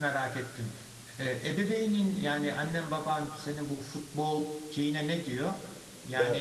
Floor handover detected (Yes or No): No